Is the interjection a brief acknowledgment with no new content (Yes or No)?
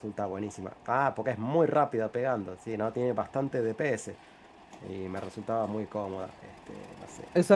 No